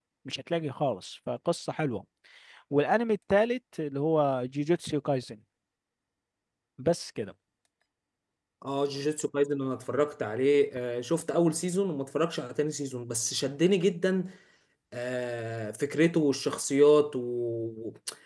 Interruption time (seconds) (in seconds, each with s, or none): none